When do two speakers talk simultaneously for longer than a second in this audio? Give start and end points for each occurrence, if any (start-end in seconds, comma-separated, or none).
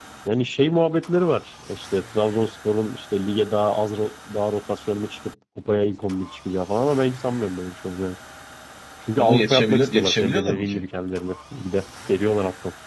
9.2-10.9